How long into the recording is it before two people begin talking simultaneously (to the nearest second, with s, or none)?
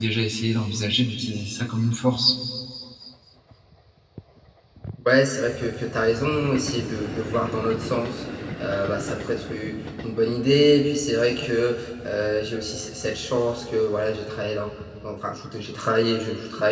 none